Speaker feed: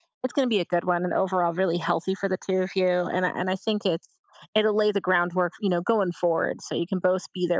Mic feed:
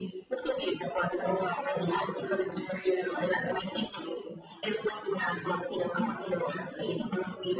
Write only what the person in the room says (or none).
none